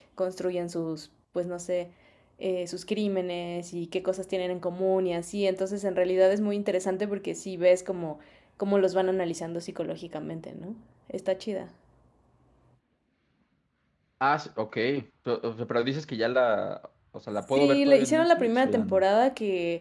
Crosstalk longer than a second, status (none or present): present